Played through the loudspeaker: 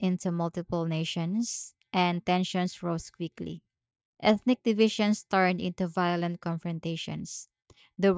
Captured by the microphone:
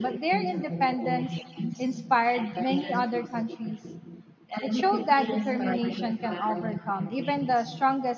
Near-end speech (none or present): present